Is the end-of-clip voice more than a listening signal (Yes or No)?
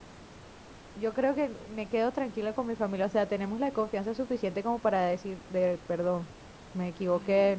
No